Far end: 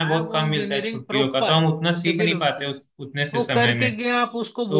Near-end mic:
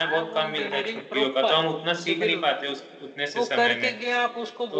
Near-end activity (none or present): none